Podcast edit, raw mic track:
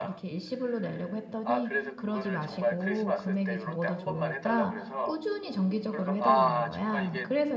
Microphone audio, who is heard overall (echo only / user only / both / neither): both